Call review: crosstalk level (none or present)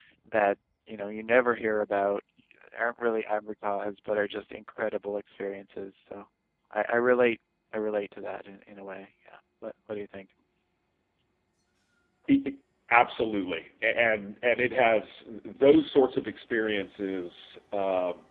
none